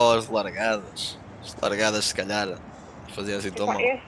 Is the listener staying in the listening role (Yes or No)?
No